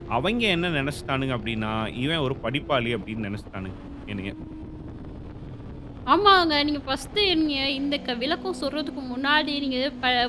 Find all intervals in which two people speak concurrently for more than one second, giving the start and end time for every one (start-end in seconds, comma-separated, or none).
none